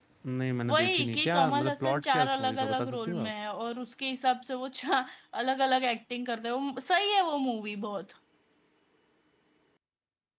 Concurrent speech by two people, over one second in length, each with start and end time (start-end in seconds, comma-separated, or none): 0.7-3.3